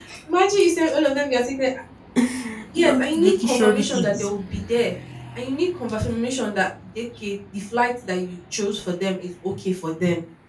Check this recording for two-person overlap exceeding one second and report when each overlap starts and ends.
2.8-4.3

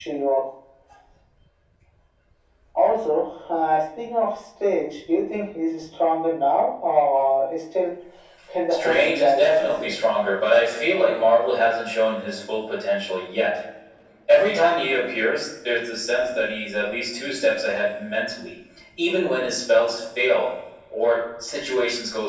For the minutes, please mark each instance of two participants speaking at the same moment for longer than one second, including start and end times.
8.7-9.9

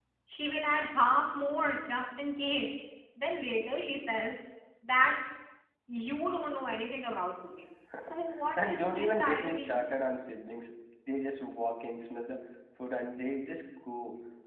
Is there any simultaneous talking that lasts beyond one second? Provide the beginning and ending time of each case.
8.6-9.8

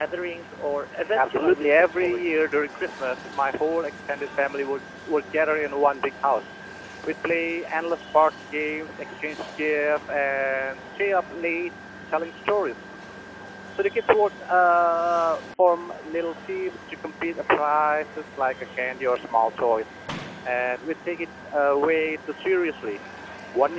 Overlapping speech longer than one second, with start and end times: 1.1-2.5

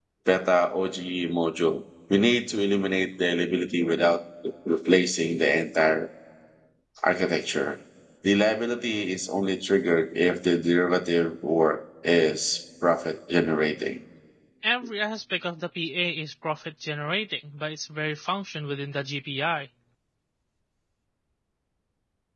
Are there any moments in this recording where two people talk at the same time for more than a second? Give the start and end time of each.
none

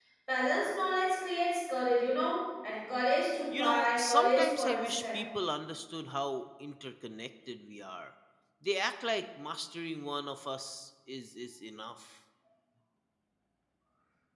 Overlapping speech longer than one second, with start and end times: 3.5-5.3

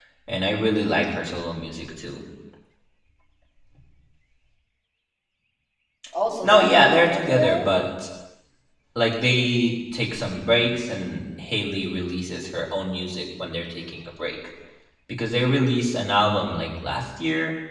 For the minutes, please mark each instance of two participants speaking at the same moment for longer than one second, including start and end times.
6.4-7.7

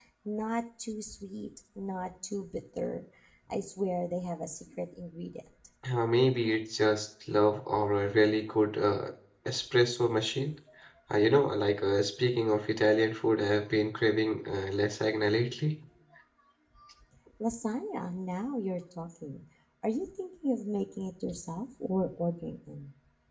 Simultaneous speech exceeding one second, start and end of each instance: none

